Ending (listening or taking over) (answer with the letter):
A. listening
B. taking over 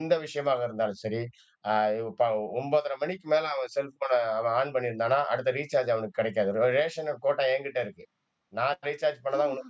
B